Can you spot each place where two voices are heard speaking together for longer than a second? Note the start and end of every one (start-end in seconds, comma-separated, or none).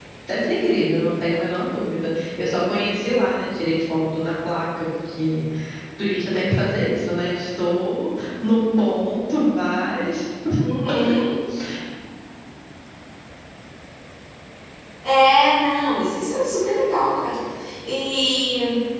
none